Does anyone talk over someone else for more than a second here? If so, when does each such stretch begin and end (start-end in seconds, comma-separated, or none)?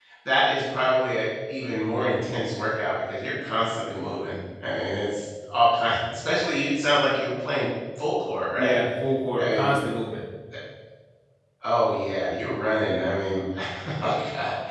none